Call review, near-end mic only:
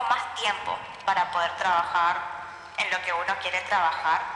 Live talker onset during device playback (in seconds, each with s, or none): none